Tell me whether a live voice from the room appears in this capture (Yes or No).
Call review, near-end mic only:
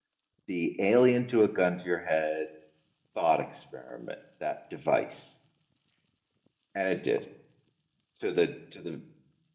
Yes